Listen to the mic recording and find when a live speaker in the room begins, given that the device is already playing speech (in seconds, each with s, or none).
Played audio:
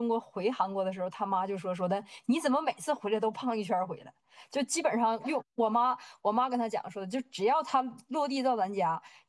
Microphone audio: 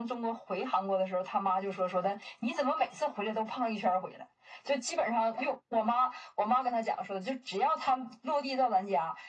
none